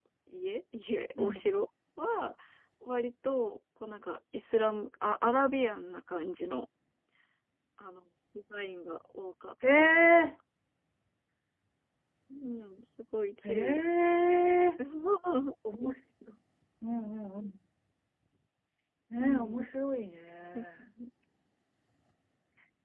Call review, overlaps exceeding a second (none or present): none